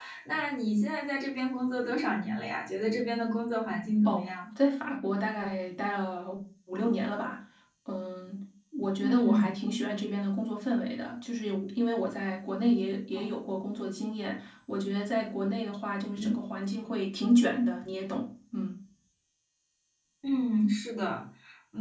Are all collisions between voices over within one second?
Yes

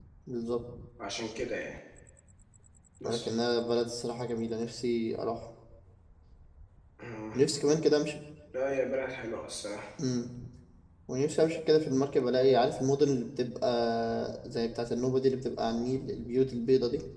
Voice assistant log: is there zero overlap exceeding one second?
Yes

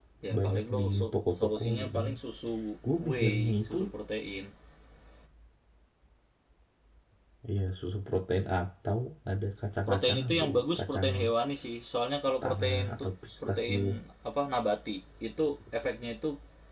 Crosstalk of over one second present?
Yes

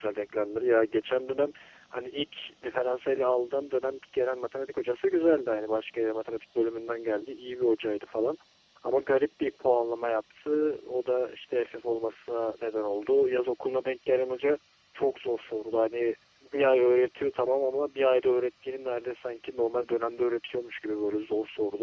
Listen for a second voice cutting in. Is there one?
No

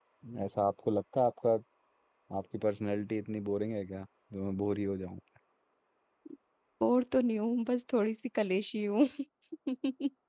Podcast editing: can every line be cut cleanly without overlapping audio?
Yes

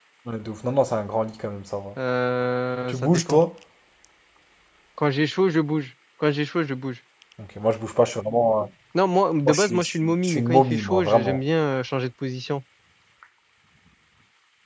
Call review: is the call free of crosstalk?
No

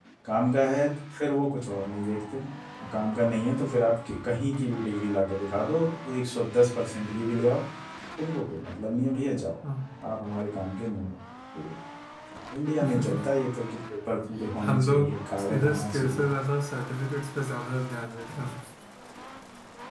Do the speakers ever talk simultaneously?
Yes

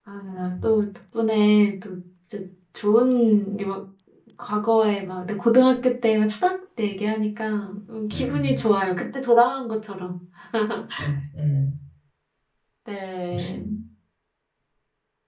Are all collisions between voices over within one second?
Yes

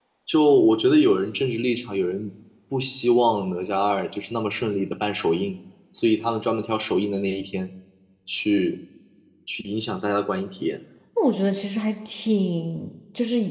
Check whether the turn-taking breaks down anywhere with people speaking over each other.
No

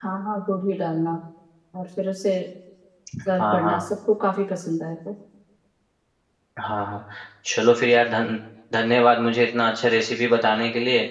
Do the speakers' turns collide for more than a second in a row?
No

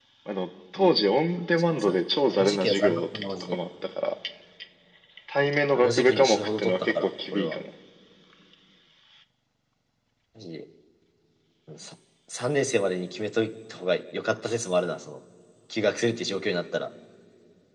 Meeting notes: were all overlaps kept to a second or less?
No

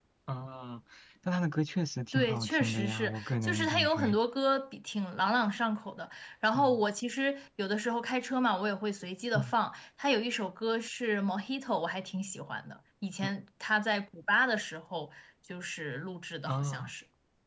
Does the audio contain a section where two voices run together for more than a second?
Yes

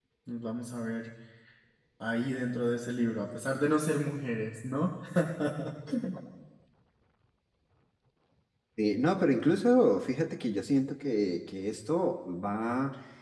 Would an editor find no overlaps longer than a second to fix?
Yes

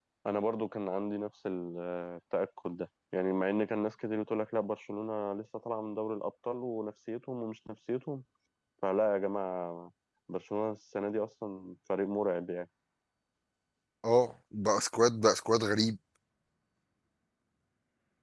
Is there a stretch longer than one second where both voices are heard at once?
No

